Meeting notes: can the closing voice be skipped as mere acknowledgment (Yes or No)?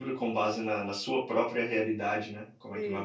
No